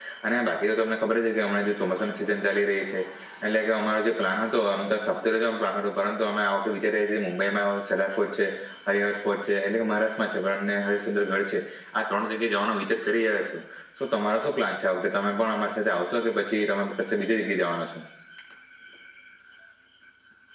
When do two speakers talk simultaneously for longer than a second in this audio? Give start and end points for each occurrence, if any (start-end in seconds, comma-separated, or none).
none